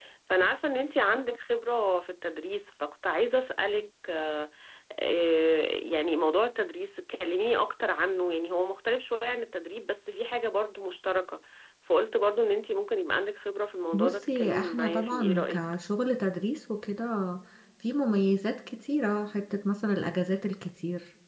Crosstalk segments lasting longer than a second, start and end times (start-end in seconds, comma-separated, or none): 13.9-15.6